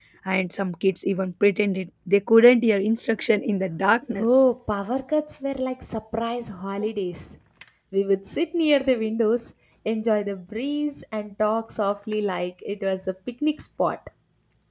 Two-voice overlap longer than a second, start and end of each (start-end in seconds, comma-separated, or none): none